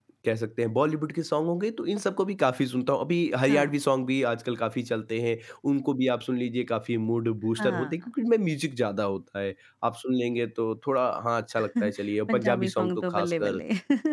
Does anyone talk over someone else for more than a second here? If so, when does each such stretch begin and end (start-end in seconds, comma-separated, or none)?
12.3-13.6